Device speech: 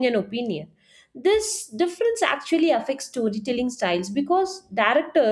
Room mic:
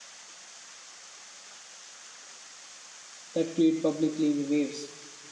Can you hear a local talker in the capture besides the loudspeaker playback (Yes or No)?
Yes